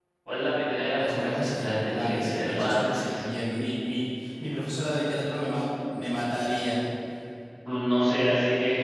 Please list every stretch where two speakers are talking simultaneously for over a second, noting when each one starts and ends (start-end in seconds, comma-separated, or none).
1.0-3.2